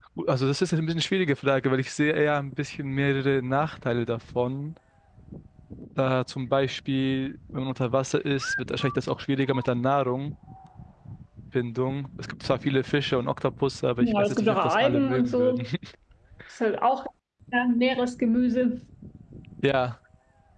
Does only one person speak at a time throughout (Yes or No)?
No